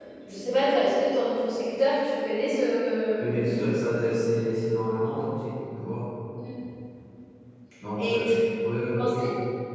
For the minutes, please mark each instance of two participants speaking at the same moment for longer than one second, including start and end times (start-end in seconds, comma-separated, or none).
none